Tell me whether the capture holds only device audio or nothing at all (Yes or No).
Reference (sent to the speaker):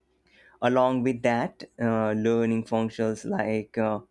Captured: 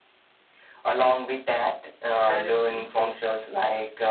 No